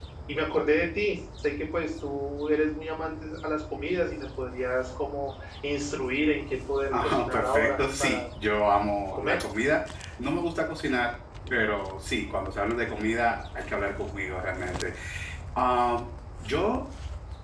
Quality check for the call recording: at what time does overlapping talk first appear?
7 s

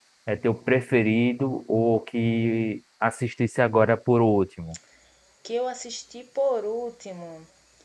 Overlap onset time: none

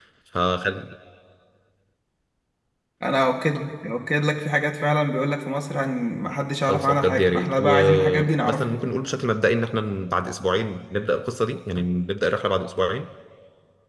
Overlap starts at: 7 s

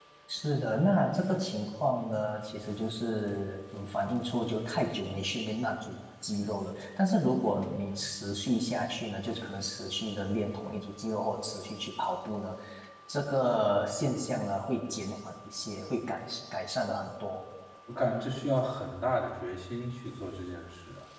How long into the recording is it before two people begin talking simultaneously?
none

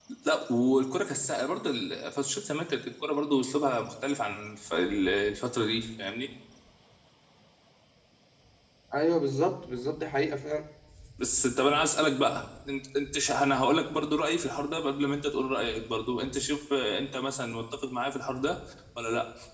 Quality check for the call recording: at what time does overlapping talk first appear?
none

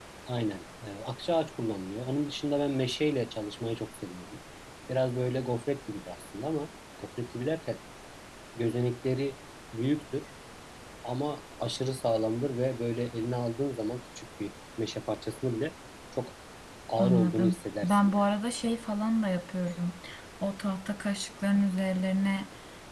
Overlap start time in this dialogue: 17 s

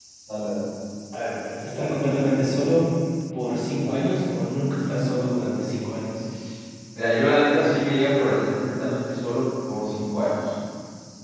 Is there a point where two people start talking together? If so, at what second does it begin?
none

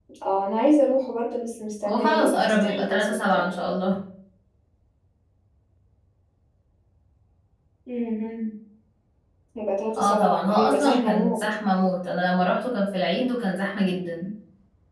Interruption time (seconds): 2 s

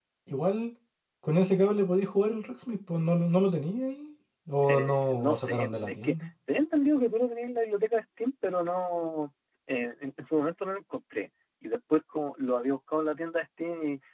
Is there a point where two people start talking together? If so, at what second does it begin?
5 s

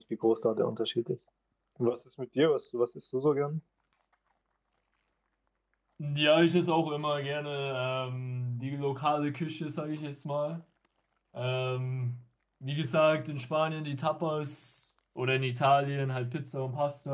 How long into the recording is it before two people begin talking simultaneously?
none

